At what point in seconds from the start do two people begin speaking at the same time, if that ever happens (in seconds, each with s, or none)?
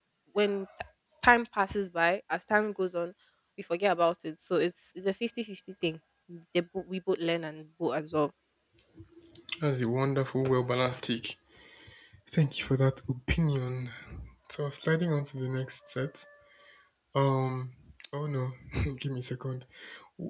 none